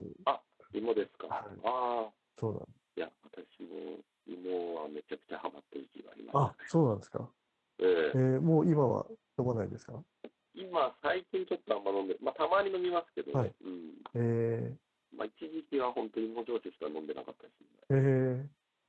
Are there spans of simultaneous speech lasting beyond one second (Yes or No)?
No